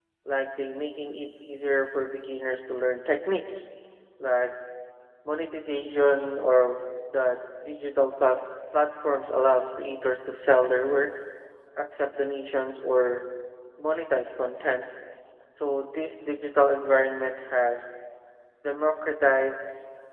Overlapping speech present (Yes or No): No